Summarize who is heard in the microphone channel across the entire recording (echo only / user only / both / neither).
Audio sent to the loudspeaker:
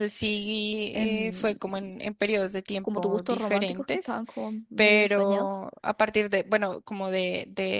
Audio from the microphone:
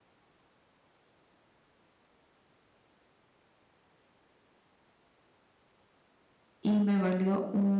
user only